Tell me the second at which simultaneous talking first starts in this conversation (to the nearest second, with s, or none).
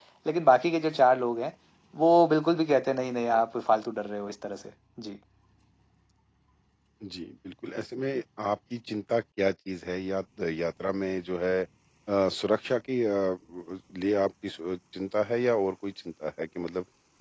none